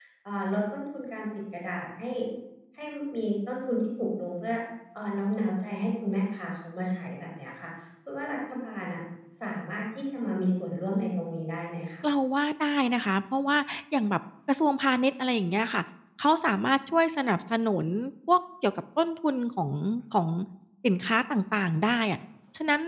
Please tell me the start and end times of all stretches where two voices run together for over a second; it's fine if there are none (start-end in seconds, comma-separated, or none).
none